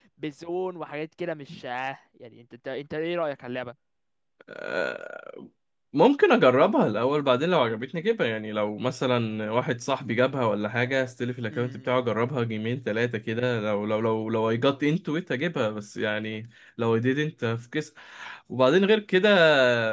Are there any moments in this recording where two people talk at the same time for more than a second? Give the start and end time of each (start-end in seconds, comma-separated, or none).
none